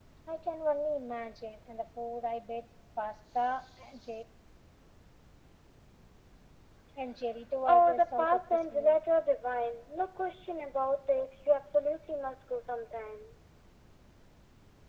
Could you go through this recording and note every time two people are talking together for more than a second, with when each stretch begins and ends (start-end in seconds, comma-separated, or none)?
7.7-9.0